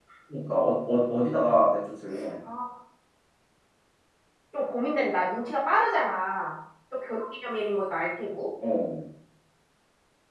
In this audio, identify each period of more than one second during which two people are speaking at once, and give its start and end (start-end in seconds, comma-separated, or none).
none